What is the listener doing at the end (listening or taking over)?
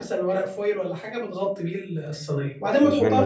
listening